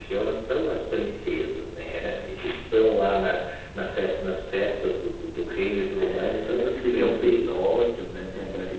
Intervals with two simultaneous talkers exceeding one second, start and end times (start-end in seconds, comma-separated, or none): 6.0-7.6